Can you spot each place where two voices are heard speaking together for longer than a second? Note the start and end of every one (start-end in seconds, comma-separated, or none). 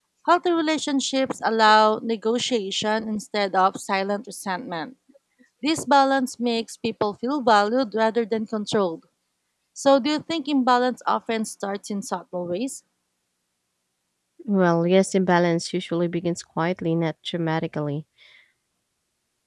none